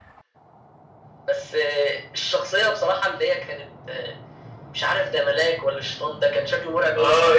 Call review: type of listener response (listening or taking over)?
taking over